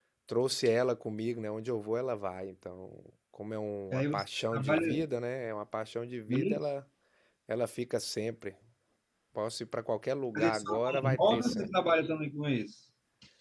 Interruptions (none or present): present